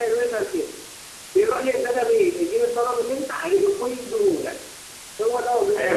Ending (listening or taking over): taking over